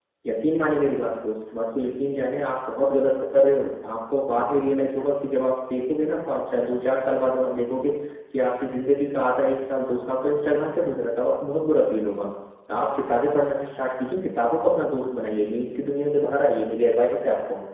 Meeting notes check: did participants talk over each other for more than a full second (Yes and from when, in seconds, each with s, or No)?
No